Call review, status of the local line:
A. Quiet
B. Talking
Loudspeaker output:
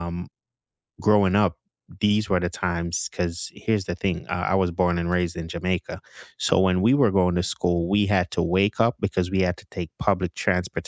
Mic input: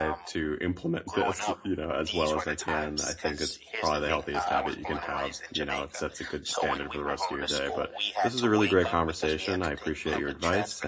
B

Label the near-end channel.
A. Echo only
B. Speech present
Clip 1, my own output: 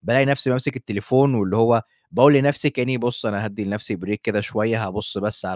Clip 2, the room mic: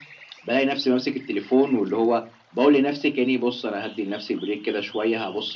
A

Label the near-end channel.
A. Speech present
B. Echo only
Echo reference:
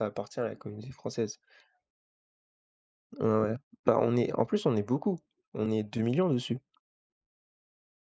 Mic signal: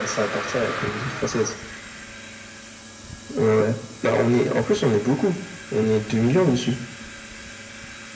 B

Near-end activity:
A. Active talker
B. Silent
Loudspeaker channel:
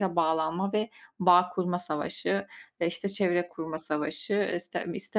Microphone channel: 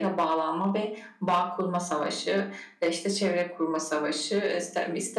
B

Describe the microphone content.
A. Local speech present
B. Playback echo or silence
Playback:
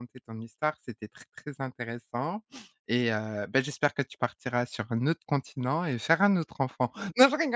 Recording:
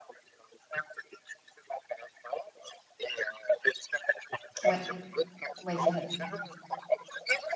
A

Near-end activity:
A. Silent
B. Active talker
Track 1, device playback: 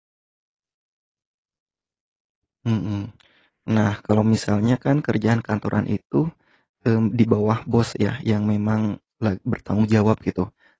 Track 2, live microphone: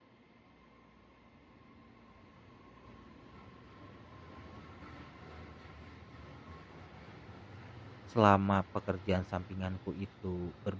B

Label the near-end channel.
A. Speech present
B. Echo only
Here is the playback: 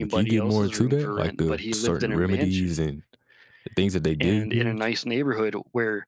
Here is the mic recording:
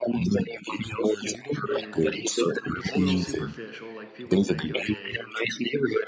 A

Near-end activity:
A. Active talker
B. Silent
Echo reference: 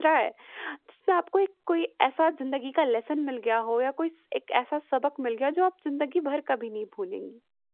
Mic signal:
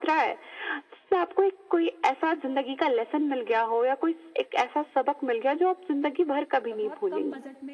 A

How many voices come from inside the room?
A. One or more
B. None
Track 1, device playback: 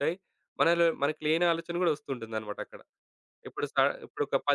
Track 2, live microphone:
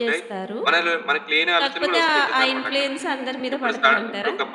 A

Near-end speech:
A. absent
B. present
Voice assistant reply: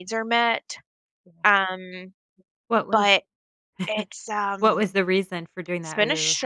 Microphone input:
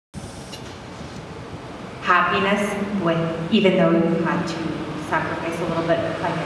B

